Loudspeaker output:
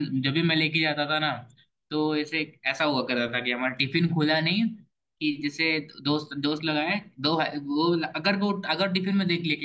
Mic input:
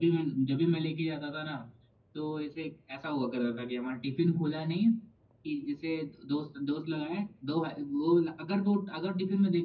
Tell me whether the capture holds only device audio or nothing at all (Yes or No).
Yes